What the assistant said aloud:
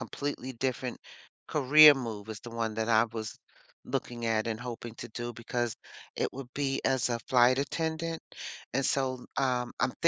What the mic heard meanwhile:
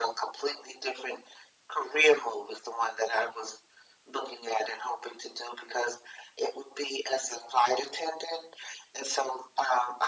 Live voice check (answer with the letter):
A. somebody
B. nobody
B